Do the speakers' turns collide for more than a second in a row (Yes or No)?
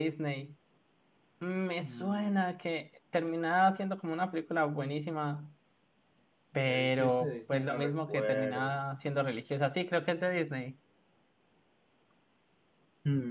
Yes